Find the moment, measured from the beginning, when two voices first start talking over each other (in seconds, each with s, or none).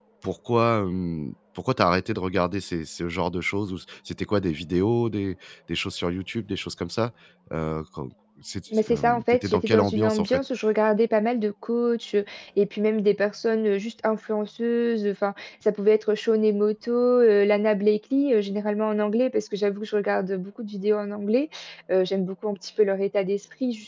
8.7 s